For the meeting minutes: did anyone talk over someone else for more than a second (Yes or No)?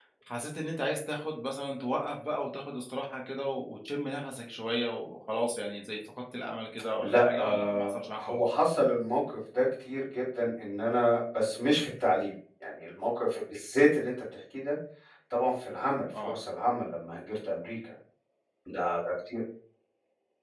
Yes